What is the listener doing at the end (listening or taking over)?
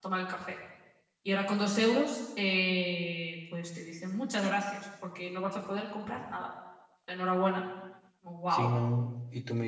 taking over